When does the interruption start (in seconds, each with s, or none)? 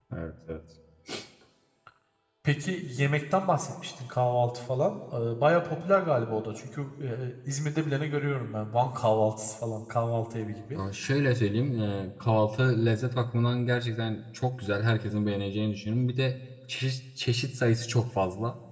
none